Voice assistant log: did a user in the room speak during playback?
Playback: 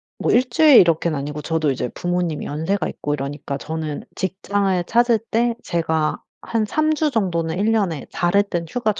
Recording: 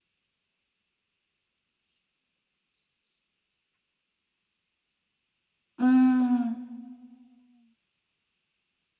Yes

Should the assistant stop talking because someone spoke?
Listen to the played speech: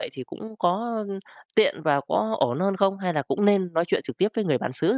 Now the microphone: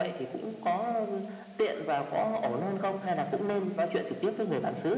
No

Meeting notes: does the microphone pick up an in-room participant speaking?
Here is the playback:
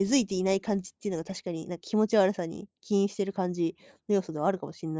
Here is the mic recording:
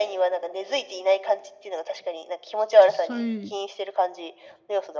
Yes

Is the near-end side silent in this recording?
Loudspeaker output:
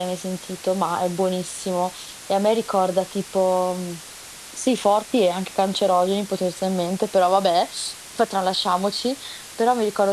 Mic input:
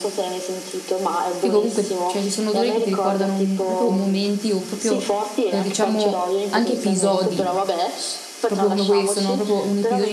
No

